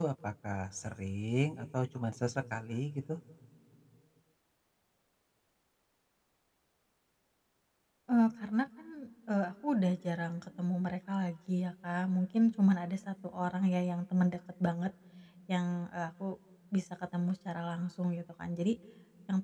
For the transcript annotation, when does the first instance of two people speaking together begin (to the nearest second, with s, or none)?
none